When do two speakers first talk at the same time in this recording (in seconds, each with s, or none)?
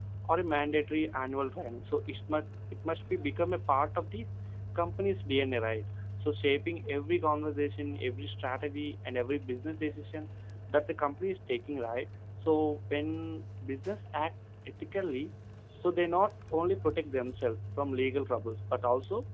none